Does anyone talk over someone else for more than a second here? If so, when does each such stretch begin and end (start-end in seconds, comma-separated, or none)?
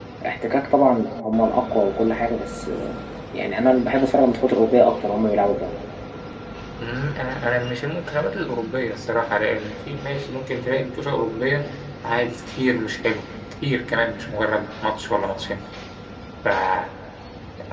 none